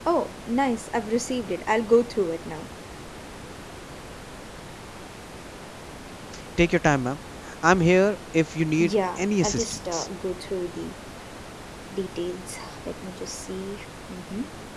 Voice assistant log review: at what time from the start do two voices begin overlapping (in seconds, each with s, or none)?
8.8 s